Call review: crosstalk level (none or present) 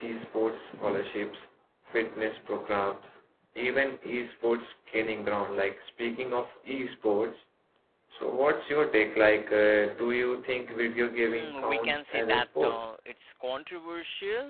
present